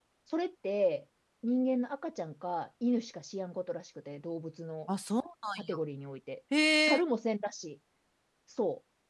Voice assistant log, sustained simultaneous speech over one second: none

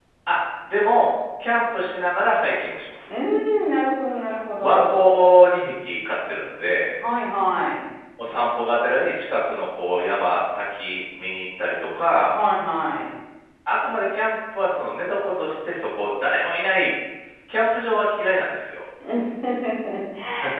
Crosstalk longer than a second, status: none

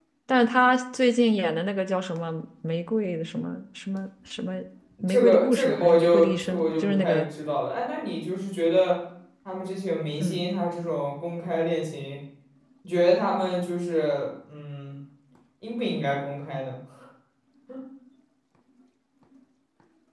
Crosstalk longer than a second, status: present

